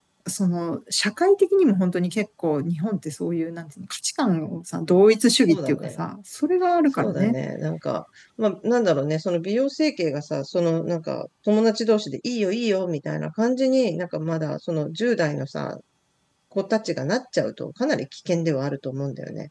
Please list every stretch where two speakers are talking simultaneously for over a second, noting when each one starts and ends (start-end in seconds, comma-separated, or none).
none